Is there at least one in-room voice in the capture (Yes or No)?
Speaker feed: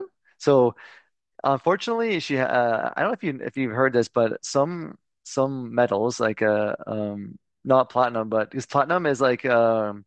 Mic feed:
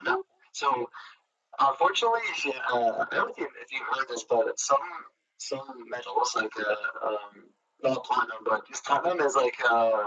No